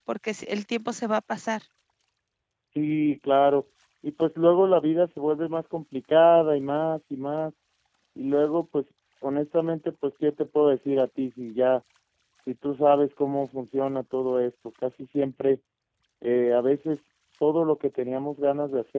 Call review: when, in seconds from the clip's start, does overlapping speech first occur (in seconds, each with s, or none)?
none